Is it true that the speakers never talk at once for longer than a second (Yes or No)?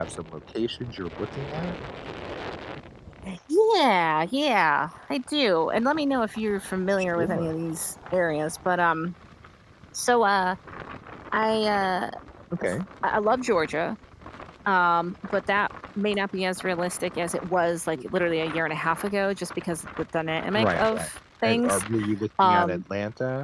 Yes